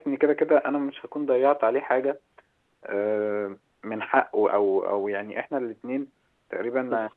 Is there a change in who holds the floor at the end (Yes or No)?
No